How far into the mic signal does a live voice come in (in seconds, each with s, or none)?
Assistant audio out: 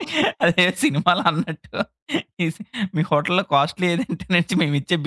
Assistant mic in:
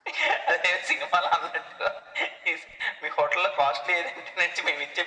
none